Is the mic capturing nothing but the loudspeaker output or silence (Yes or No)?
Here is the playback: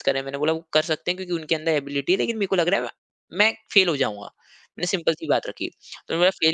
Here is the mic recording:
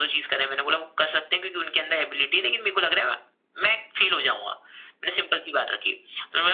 Yes